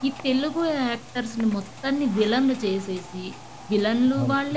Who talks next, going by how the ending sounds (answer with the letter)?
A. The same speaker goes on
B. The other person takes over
A